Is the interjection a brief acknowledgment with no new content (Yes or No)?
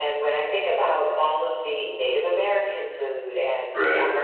Yes